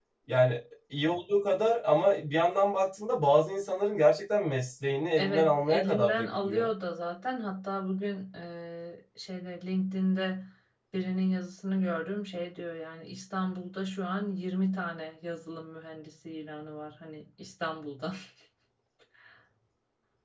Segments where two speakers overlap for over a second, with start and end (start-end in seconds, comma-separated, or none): 5.2-6.7